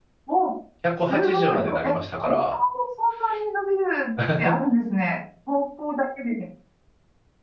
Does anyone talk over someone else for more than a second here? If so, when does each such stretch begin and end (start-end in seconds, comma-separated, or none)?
1.0-2.5